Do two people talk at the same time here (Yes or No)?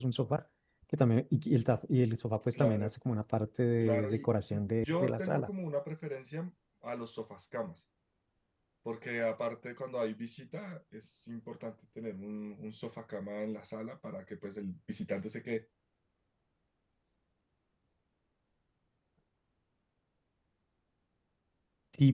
Yes